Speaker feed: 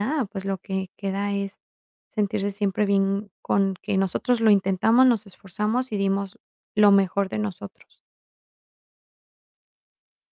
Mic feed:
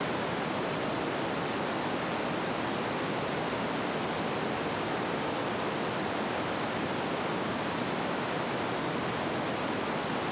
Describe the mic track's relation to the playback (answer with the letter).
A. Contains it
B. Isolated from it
B